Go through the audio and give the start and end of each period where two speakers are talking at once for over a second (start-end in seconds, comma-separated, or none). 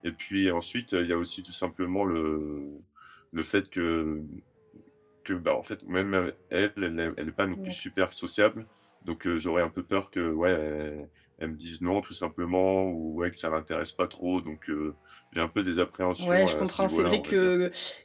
16.2-17.5